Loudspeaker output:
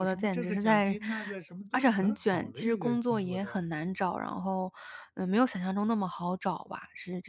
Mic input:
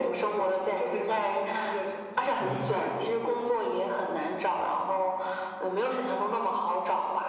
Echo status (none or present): present